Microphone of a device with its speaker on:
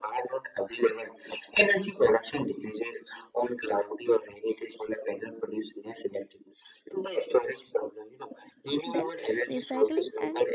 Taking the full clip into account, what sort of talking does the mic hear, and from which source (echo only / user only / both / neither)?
both